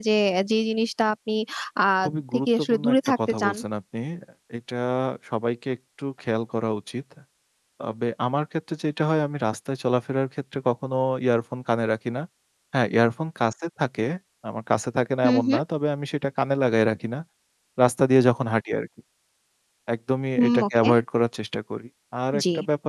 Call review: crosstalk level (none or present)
present